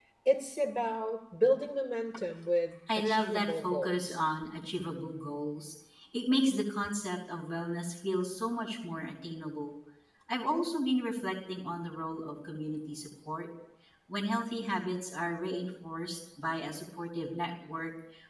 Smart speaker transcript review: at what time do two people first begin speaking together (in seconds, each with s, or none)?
2.9 s